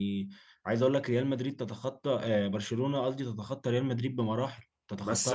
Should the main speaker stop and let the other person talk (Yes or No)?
Yes